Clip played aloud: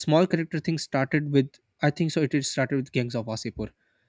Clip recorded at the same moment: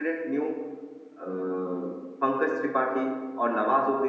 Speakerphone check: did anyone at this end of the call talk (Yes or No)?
Yes